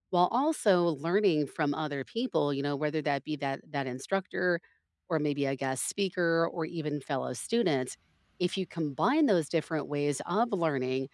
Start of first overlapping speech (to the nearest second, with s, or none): none